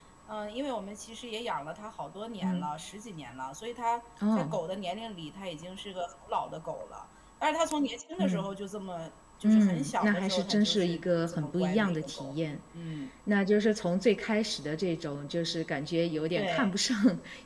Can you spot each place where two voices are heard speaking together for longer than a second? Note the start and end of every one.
9.4-12.3

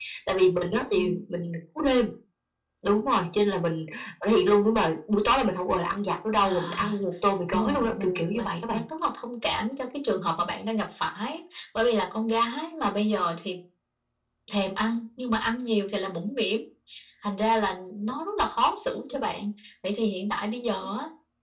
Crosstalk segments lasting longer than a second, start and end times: 7.5-8.8

